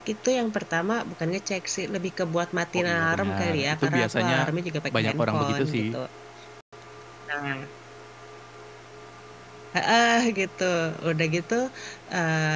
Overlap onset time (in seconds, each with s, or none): 2.8 s